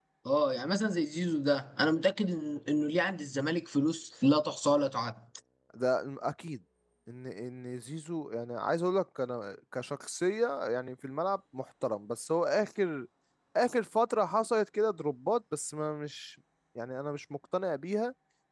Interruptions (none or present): none